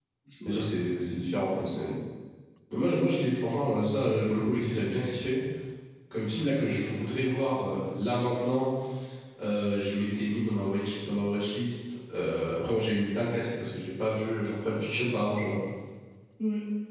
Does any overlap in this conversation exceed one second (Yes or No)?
Yes